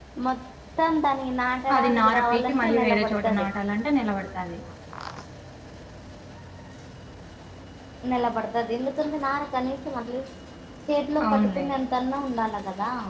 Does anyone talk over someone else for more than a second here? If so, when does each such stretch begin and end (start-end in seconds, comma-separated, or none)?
1.8-3.5